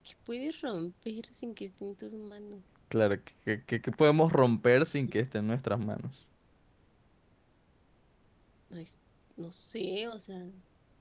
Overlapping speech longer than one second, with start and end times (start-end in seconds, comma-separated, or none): none